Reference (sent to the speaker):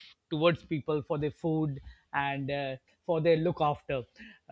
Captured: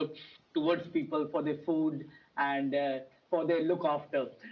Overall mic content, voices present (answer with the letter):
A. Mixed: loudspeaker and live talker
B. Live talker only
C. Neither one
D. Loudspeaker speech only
D